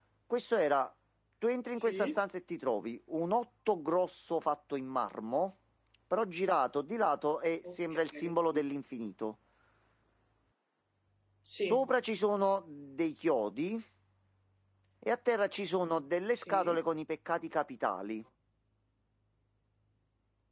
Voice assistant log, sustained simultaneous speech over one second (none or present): none